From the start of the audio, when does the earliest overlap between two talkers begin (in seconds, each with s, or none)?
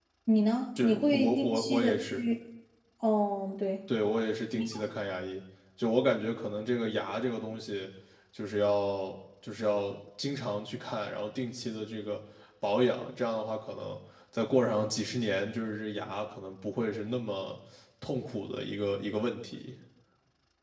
0.8 s